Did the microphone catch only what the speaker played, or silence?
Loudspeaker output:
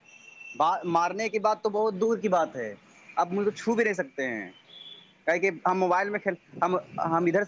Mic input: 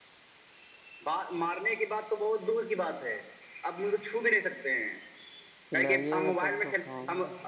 No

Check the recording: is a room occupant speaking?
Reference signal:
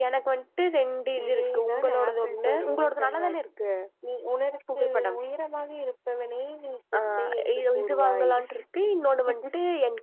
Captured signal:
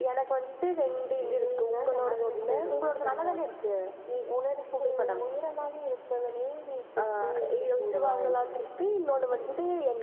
No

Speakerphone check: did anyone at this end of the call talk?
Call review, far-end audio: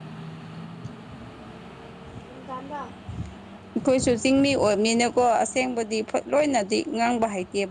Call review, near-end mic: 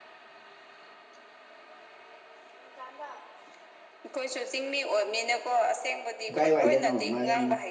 Yes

